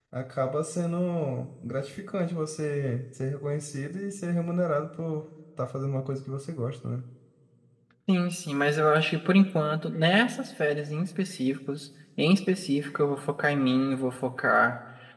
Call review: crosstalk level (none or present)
none